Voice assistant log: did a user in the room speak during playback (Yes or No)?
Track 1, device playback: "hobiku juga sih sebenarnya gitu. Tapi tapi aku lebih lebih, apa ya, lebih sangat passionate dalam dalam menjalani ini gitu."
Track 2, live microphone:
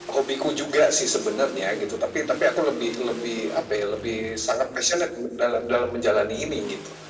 No